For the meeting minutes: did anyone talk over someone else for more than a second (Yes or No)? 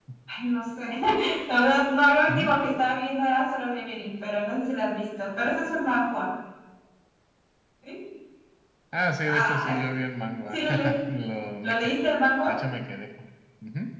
No